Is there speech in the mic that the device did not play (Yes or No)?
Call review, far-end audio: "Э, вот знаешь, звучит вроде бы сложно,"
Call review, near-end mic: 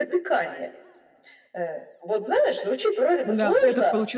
Yes